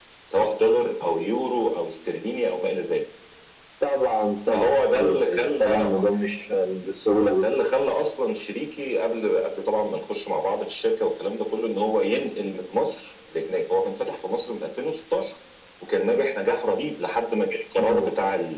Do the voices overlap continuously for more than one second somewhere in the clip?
Yes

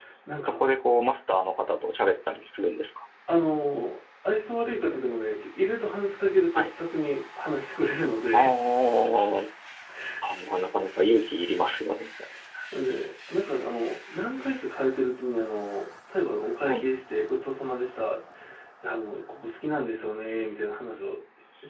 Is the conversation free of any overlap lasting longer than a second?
Yes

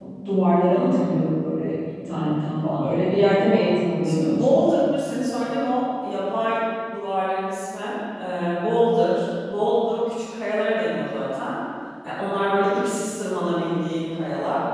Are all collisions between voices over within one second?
Yes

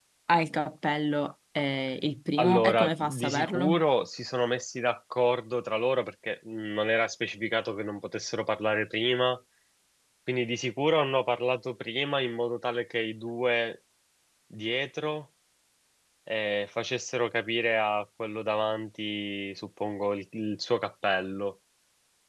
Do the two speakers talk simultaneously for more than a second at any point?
Yes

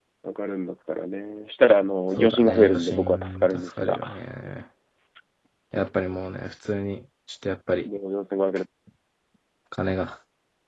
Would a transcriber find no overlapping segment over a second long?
No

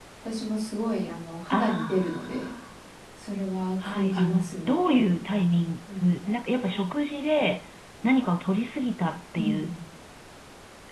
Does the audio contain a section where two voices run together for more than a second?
Yes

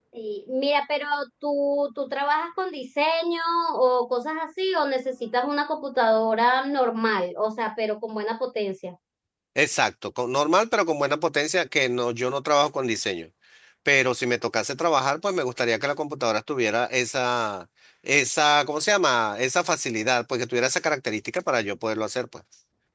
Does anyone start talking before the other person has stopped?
No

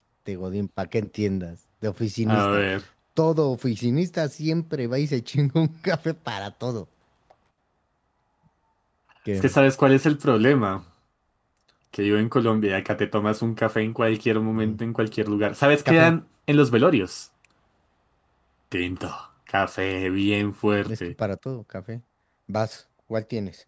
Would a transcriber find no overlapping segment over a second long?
Yes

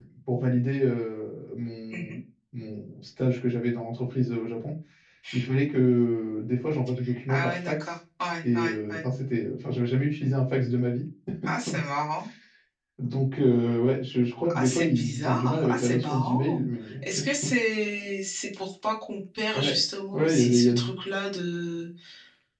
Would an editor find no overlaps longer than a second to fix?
No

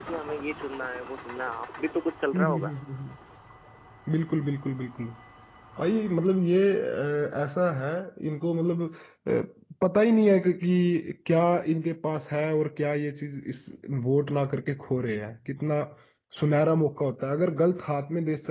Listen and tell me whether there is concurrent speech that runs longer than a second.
No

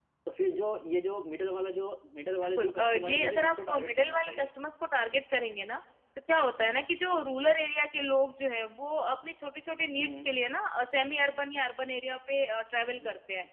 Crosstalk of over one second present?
Yes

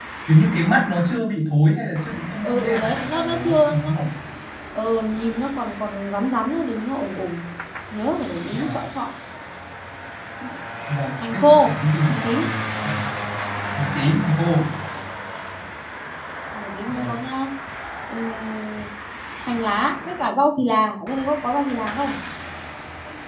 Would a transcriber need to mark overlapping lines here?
Yes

